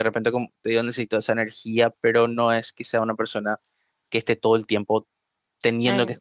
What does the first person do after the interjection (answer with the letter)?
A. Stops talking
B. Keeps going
A